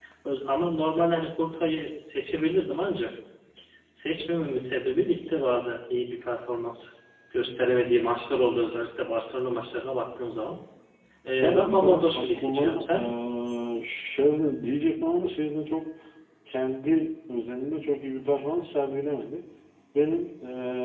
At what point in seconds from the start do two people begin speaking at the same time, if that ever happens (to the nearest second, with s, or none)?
11 s